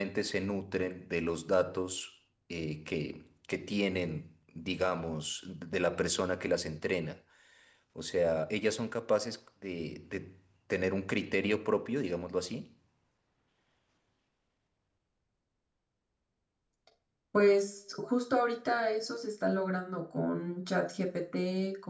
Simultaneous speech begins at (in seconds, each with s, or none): none